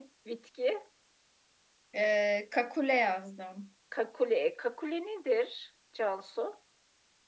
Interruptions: none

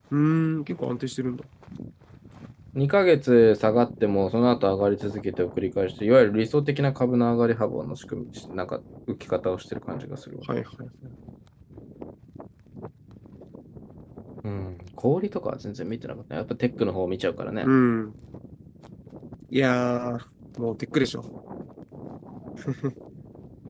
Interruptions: none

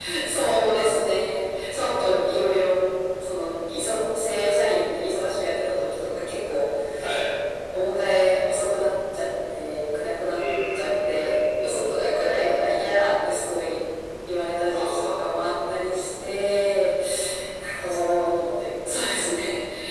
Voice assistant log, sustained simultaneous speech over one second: present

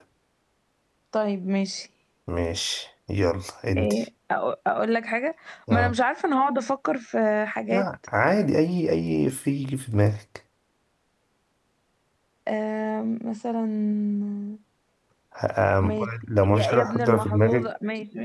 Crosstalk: present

